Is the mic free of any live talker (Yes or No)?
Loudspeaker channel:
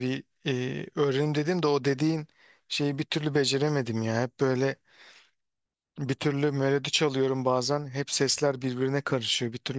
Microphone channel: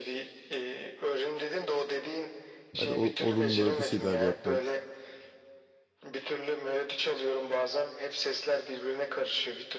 No